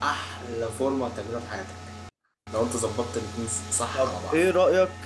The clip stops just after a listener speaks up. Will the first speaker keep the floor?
No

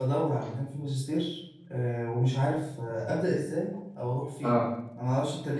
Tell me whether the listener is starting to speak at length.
No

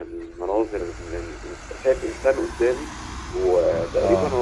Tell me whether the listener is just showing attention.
Yes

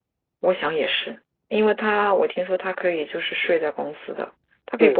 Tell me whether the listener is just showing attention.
No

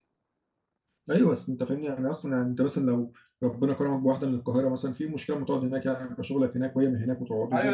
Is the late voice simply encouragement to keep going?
No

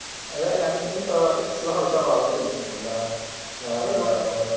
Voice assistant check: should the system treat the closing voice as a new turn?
Yes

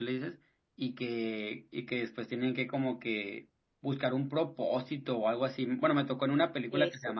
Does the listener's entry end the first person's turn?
No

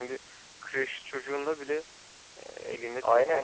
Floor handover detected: Yes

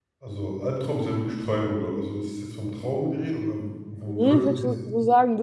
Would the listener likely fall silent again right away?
No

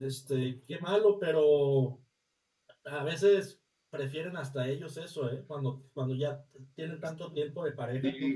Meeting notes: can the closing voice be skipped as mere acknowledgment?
No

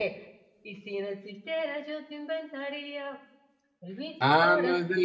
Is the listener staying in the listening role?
No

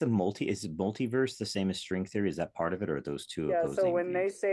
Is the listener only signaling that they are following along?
No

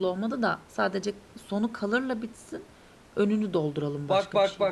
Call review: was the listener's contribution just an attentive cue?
No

